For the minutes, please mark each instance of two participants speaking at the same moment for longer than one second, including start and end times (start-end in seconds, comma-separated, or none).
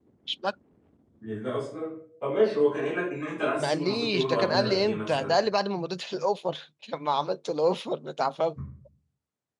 3.6-5.3